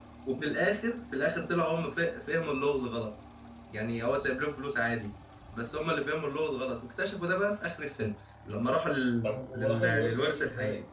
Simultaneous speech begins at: 9.2 s

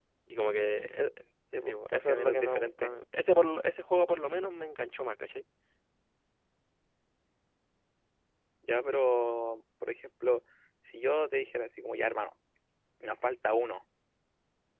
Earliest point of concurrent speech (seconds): 1.7 s

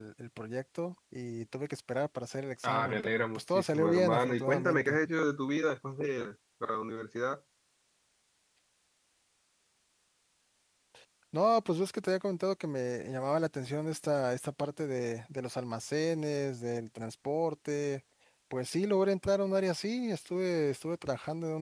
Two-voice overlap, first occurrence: 2.6 s

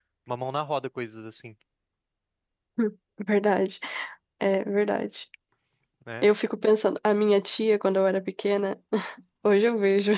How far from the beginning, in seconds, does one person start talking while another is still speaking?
none

